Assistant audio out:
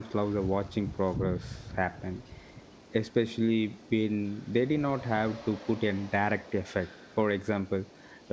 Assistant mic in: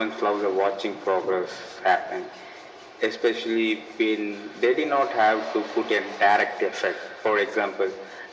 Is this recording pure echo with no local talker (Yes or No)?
Yes